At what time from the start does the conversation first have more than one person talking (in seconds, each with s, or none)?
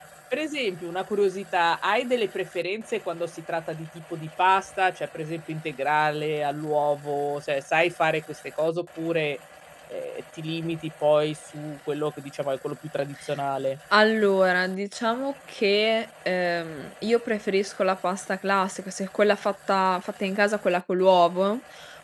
none